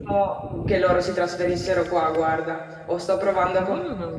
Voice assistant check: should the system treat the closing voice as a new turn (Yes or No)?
No